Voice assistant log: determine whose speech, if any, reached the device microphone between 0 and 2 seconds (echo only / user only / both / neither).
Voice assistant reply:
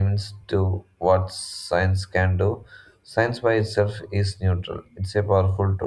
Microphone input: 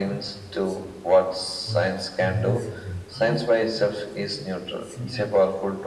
both